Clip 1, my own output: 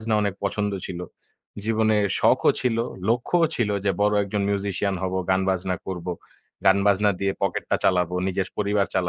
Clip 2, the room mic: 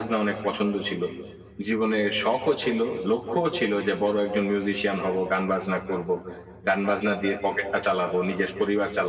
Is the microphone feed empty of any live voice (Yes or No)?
Yes